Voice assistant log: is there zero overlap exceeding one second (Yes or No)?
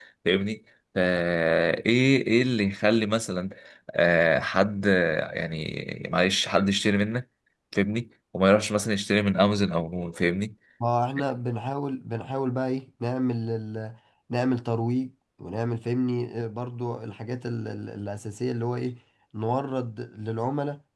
Yes